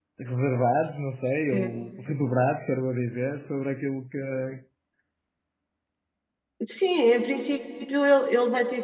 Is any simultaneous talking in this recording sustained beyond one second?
No

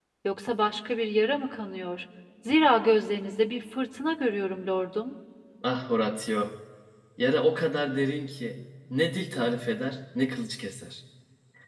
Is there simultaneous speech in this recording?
No

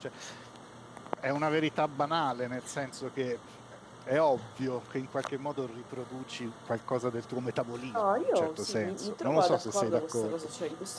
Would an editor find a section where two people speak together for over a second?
Yes, from 7.9 s

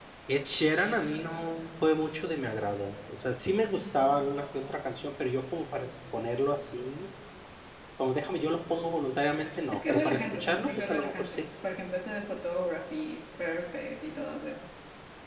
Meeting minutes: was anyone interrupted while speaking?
Yes, from 9.7 s

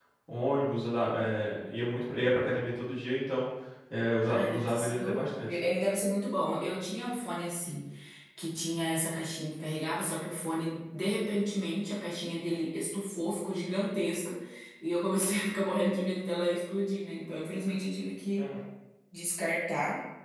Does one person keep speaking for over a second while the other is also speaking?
Yes, from 4.2 s

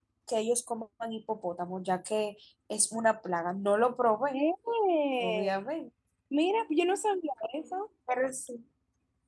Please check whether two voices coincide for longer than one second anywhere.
No

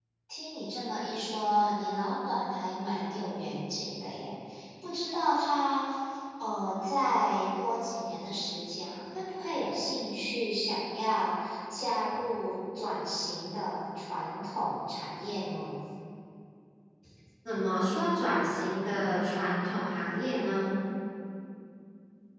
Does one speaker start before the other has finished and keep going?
No

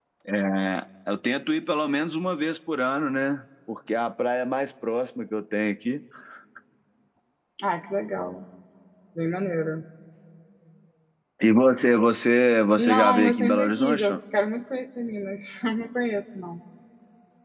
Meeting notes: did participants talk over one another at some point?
Yes, from 12.8 s

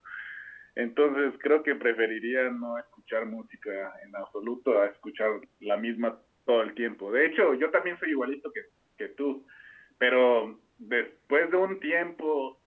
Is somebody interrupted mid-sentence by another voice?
No

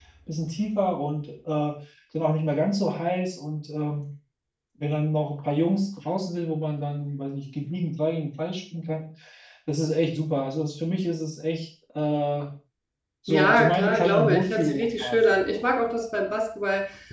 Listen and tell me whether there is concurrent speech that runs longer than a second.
Yes, from 13.3 s

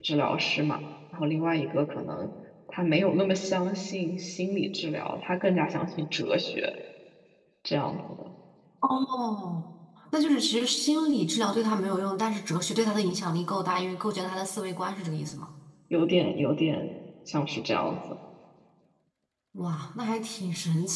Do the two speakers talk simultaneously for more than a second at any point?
No

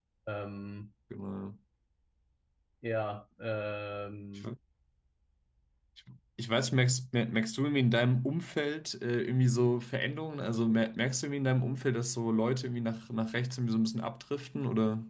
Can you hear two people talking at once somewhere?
No

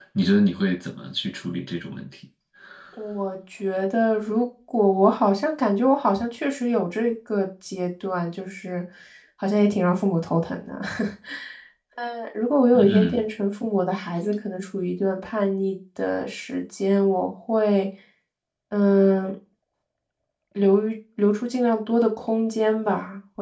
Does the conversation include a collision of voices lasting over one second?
No

